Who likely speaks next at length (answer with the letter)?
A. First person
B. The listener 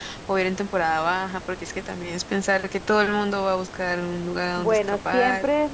B